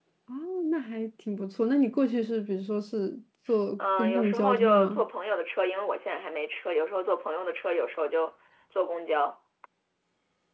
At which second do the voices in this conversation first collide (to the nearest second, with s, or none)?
4 s